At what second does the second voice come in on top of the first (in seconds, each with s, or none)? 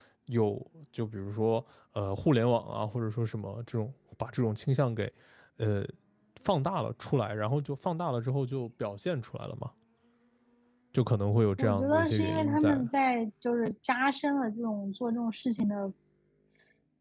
11.6 s